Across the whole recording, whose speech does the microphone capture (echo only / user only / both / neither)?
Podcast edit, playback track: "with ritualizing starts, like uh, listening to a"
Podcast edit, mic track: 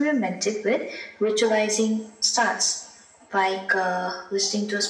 echo only